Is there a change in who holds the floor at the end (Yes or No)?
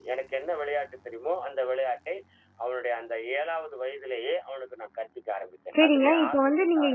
Yes